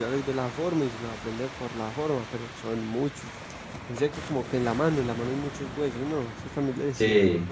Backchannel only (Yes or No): No